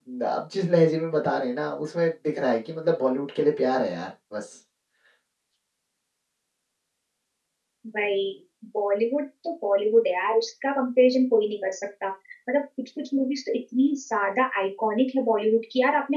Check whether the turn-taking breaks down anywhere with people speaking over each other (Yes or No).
No